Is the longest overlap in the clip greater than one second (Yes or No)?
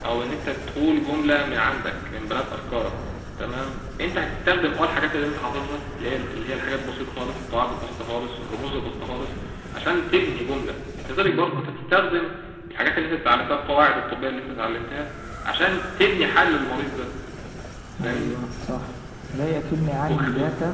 No